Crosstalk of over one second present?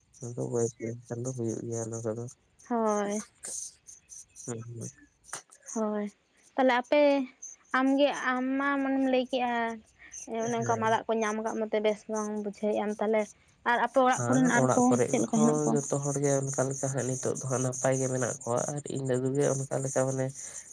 Yes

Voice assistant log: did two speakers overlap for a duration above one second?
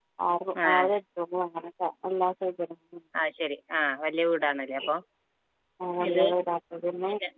No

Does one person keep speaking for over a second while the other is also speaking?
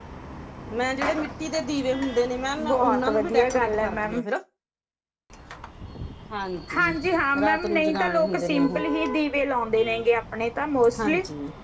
Yes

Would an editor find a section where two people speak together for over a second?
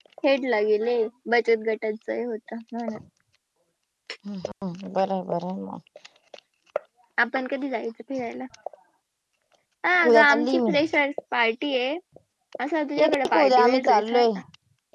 Yes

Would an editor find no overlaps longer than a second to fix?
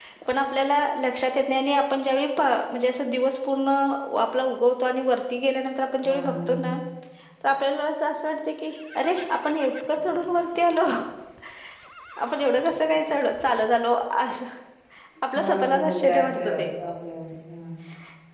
No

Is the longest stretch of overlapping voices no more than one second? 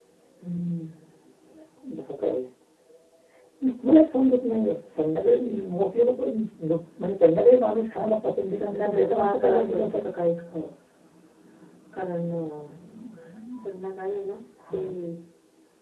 No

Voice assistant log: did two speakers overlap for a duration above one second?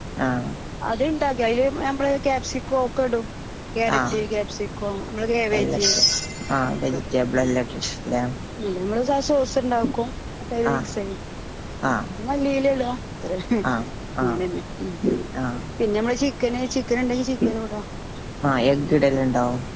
No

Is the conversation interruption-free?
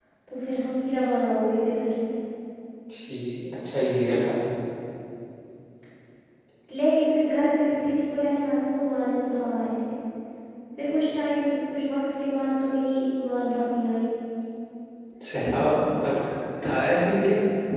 Yes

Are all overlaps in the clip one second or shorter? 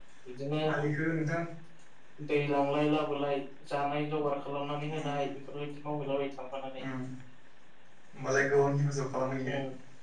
Yes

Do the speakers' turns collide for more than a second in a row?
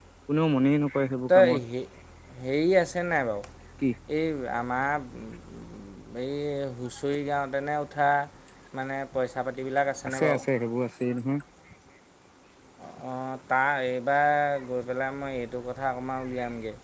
No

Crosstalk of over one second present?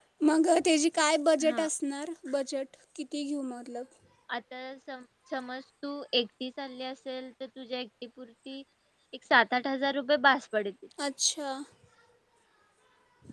No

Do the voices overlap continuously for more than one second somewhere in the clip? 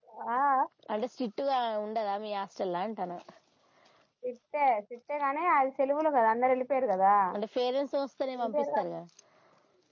No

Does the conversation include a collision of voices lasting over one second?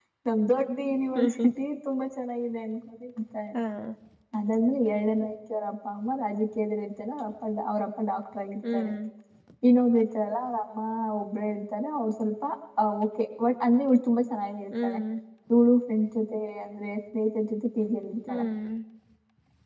No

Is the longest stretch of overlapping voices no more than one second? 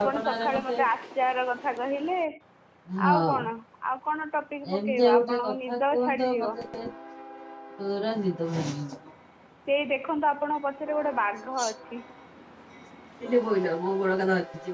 No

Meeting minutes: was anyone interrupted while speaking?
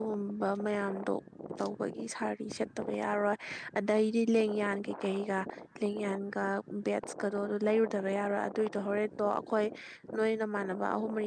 No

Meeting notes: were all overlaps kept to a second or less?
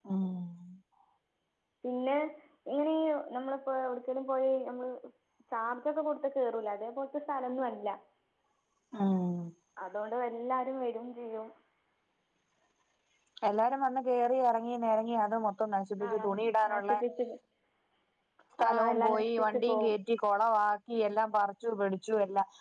No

